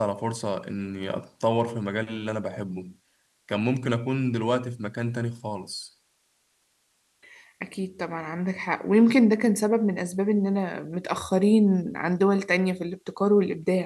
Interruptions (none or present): none